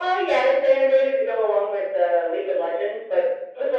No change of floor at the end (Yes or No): Yes